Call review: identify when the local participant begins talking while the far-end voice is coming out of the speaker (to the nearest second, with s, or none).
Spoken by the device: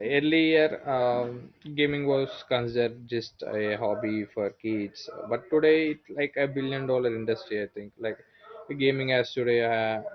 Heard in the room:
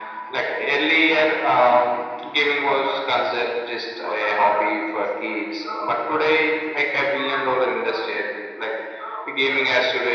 none